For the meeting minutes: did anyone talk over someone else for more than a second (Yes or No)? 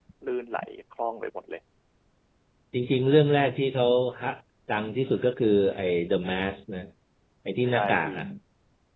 No